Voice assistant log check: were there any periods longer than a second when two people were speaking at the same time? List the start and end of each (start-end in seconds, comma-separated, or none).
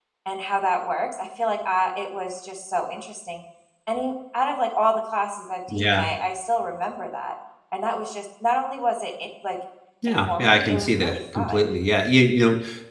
10.1-11.7